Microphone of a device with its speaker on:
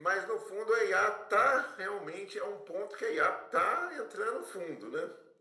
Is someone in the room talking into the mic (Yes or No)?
No